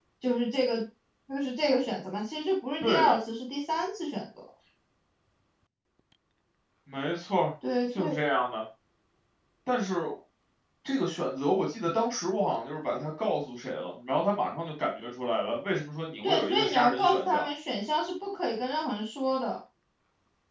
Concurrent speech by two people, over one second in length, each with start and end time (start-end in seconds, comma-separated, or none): 16.2-17.5